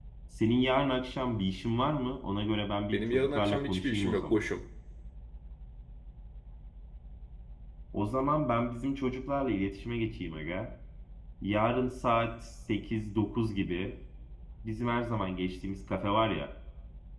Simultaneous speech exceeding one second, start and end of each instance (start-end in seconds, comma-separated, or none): 2.9-4.4